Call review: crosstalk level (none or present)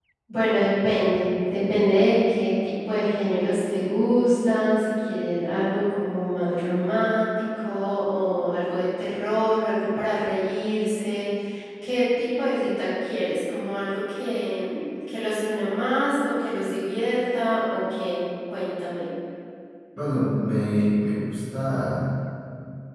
none